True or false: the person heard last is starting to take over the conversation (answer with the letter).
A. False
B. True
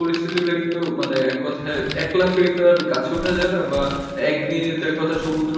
A